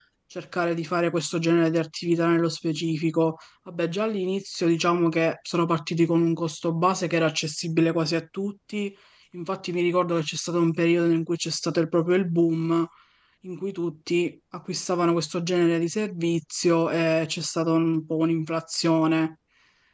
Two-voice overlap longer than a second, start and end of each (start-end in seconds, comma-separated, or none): none